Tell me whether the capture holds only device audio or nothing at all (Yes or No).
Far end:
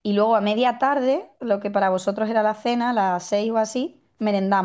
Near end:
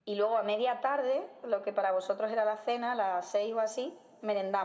Yes